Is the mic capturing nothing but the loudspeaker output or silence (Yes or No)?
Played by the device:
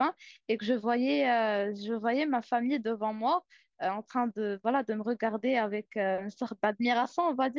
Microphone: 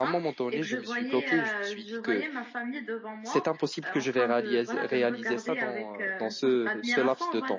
No